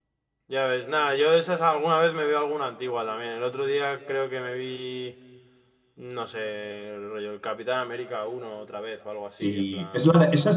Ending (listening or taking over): taking over